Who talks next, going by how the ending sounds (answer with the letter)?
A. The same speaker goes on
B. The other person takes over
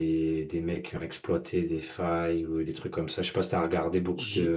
B